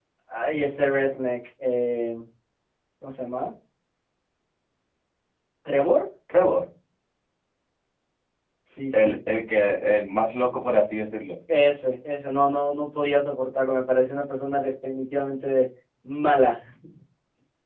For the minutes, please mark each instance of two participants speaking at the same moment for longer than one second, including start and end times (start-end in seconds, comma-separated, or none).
none